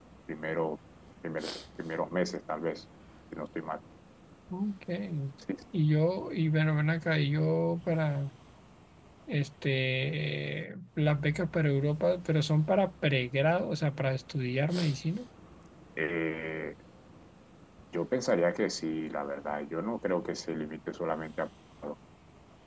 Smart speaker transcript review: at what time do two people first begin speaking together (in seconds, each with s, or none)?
none